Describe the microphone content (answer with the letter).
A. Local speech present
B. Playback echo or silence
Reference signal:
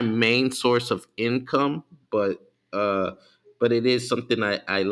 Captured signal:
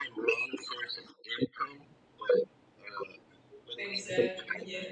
A